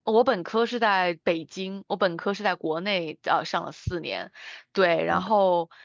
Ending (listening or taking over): listening